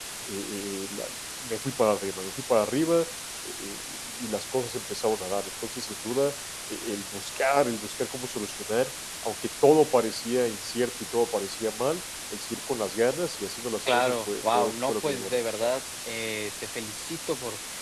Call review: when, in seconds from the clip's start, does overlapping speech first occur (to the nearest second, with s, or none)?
14 s